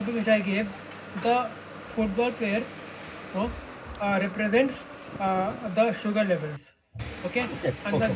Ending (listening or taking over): listening